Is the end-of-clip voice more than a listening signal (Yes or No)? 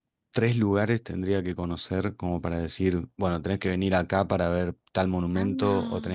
No